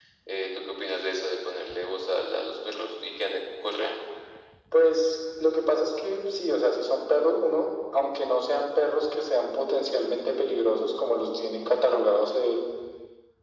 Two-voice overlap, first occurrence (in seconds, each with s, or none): none